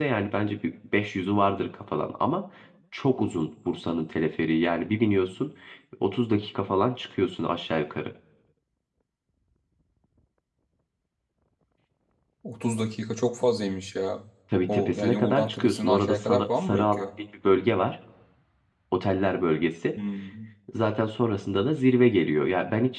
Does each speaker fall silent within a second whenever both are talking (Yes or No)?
No